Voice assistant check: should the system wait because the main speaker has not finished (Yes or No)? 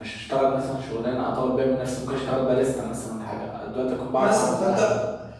No